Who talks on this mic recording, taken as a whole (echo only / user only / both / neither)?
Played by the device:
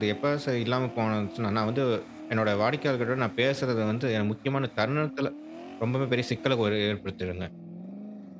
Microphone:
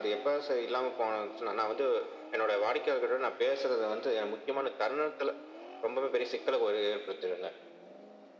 echo only